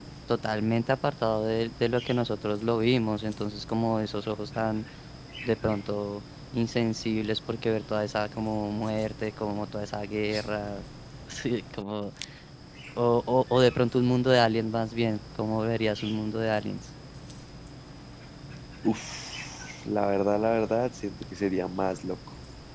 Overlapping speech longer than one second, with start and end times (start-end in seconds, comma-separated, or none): none